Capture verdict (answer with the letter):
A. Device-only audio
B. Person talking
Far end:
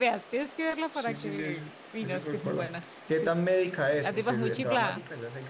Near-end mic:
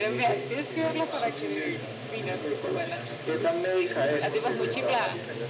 B